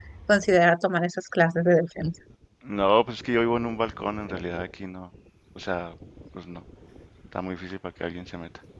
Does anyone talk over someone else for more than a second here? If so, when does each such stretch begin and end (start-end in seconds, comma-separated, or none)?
none